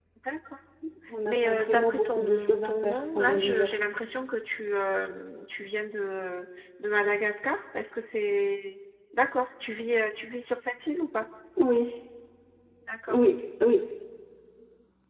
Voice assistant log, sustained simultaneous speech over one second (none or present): present